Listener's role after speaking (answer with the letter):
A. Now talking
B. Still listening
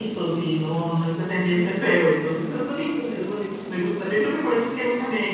B